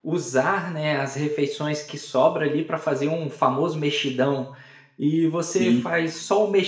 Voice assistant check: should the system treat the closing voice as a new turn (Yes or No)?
No